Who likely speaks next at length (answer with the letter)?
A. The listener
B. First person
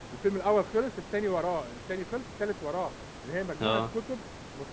B